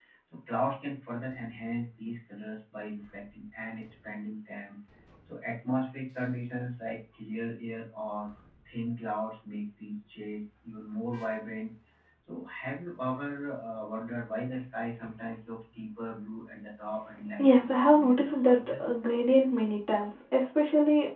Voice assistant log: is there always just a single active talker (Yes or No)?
No